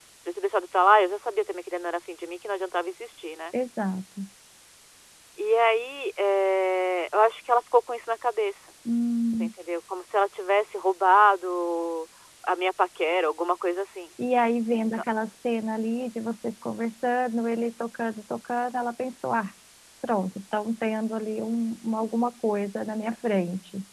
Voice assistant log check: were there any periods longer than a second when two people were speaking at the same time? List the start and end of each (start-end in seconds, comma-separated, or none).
none